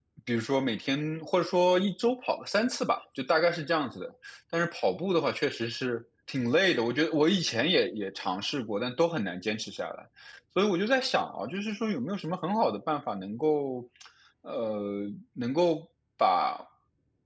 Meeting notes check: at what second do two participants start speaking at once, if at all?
none

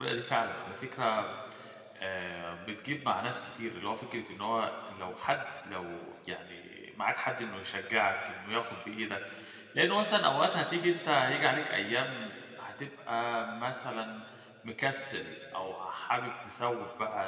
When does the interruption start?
none

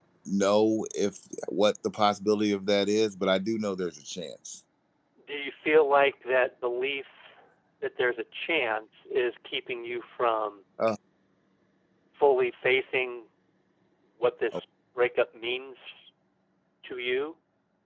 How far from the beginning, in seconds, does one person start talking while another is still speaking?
none

